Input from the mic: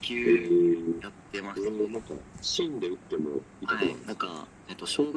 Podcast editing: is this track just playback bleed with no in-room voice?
Yes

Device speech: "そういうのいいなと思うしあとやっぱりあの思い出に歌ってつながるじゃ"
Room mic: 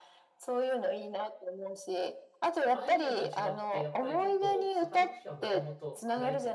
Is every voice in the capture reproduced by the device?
No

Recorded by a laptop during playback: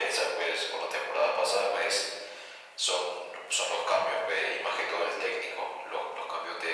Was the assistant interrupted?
No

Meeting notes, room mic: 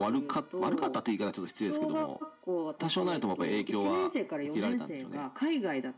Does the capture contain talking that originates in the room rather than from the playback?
No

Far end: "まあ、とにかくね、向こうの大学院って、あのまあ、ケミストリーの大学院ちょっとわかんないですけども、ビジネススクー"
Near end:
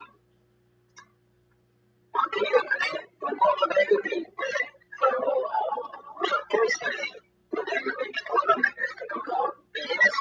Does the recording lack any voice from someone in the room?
Yes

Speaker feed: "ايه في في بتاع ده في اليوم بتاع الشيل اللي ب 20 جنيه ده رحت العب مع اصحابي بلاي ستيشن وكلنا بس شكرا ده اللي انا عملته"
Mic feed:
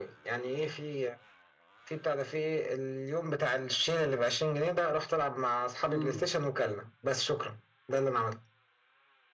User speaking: Yes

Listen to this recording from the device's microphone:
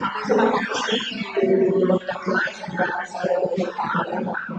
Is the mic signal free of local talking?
Yes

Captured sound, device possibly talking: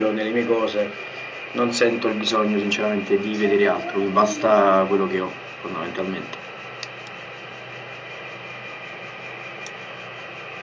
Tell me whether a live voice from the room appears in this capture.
Yes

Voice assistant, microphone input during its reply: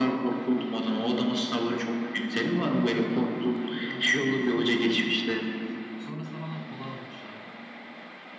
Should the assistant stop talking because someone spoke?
Yes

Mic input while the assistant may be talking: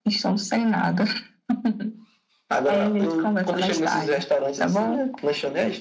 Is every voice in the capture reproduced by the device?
Yes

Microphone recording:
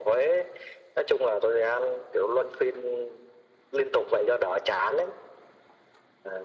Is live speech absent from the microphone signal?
Yes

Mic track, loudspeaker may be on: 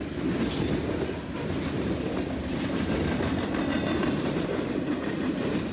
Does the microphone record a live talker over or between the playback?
No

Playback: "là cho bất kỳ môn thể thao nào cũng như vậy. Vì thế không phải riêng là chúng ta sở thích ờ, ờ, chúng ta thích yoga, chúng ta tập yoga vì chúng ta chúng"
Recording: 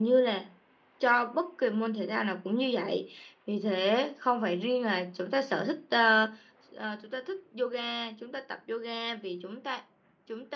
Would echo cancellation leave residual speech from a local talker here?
No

